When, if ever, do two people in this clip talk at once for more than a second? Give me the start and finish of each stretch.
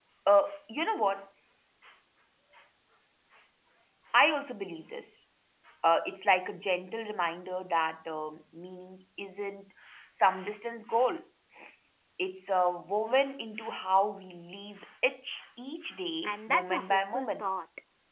16.2-17.4

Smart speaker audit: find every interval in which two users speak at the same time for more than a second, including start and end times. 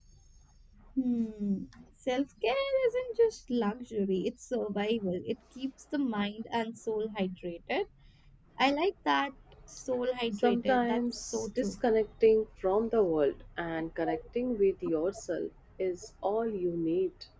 10.4-11.8

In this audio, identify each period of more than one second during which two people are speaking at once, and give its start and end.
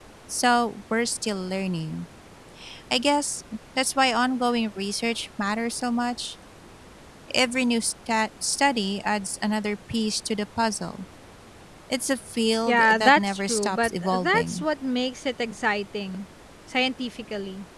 12.7-14.6

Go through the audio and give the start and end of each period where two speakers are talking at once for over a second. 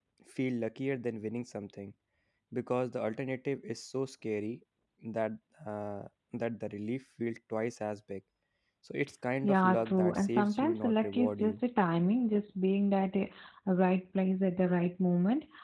9.4-11.6

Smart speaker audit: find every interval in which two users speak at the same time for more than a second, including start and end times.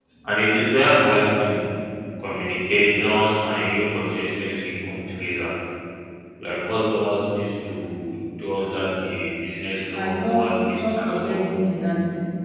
9.9-11.4

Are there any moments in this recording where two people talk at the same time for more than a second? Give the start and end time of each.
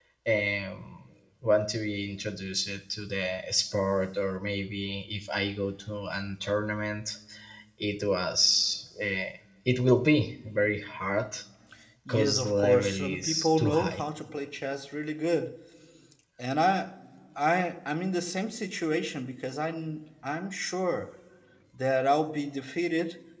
12.1-14.0

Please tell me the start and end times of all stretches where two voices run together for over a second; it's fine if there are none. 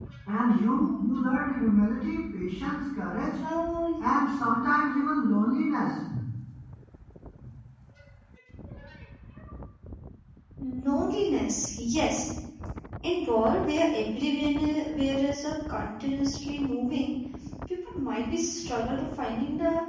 none

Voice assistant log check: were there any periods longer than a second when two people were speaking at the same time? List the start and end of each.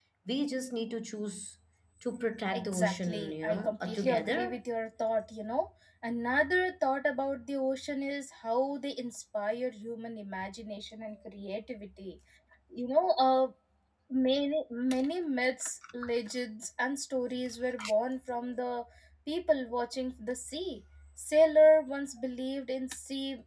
2.5-4.6

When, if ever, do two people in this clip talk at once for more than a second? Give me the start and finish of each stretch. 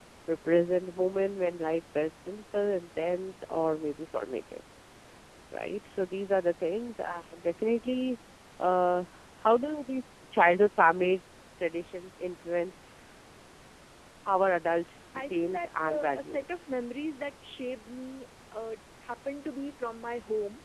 15.2-16.4

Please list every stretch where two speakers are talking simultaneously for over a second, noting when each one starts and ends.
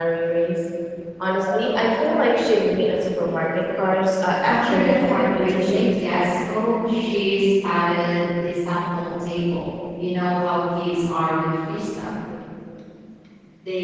4.5-5.9

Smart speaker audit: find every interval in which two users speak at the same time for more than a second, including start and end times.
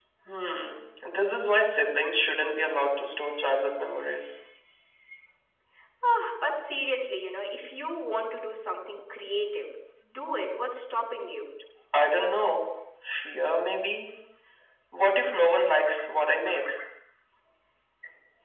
none

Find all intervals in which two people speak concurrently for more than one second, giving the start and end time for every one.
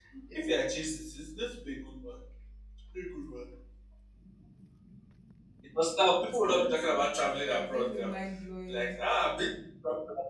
6.2-8.1

